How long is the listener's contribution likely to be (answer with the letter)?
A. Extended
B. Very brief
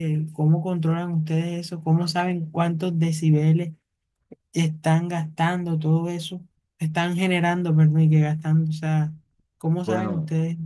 A